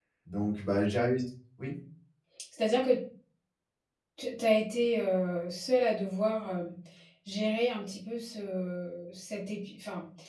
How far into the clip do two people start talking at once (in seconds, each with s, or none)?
none